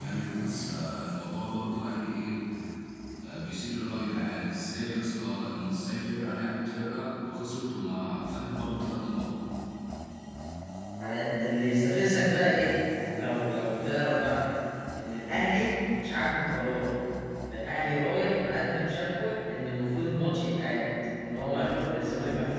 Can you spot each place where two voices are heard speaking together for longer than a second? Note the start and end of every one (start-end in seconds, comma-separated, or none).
none